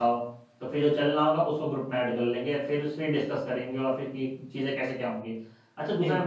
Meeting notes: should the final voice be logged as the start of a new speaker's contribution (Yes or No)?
No